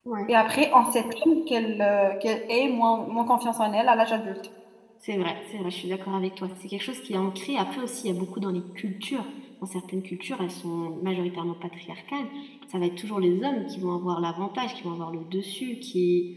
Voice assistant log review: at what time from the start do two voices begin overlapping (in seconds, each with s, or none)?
none